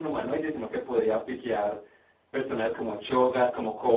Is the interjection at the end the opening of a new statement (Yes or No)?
No